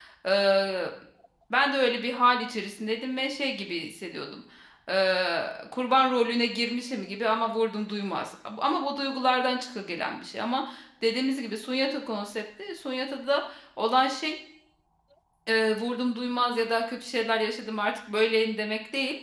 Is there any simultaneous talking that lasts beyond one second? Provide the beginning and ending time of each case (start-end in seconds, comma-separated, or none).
none